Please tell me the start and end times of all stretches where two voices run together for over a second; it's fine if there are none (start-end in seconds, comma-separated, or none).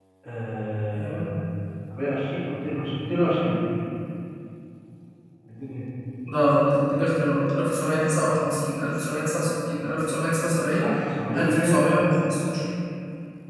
none